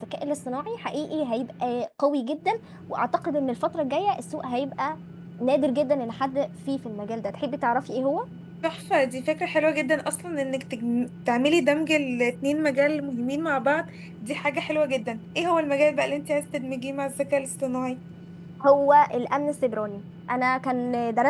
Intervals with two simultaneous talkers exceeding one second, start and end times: none

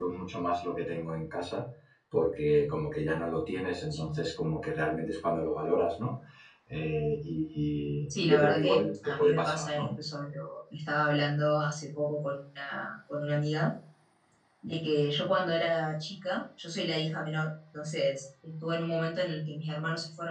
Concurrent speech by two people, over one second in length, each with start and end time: 8.1-9.9

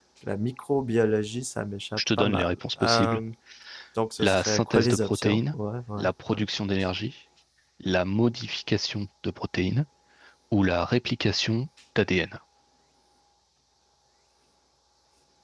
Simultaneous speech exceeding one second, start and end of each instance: 2.0-3.2, 4.2-5.5

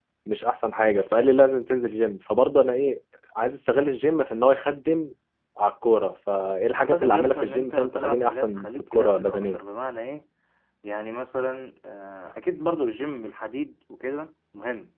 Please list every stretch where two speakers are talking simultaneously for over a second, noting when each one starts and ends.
6.8-9.6

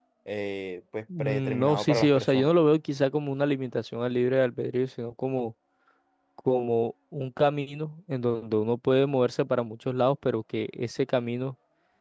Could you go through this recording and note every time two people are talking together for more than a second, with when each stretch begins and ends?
1.2-2.5

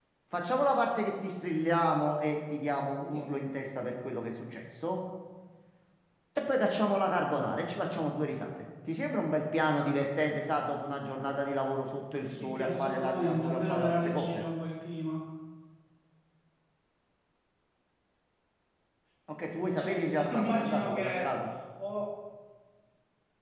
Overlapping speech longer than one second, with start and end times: 12.2-14.4, 19.4-21.2

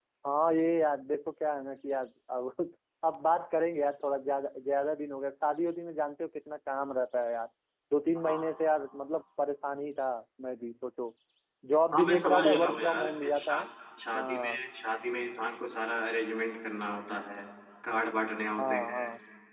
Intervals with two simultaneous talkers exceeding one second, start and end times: 11.9-13.6

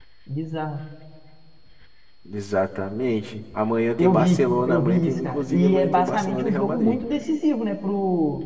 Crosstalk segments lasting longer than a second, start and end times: 4.0-7.0

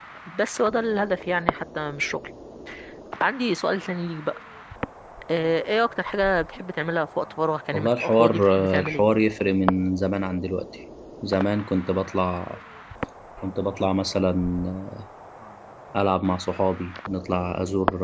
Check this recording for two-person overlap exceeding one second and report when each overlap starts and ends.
7.7-9.1

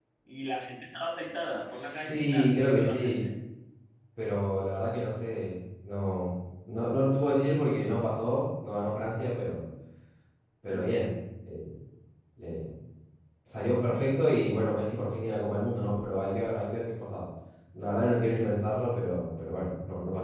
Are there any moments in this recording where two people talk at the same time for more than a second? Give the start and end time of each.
1.7-3.2

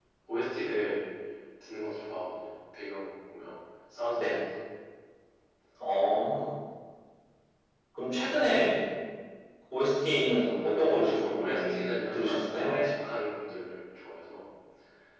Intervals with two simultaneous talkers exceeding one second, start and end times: 10.4-12.8

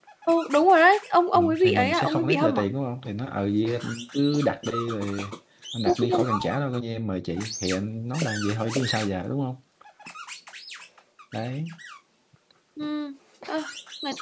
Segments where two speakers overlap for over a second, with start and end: 1.3-2.6

